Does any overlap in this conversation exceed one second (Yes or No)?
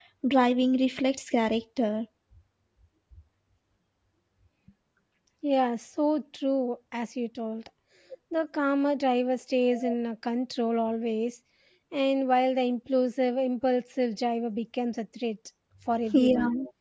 No